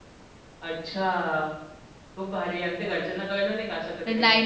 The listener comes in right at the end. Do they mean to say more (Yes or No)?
Yes